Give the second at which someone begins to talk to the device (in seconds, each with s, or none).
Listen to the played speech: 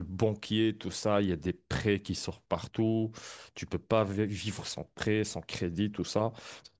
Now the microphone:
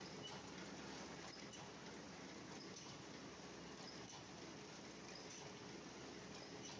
none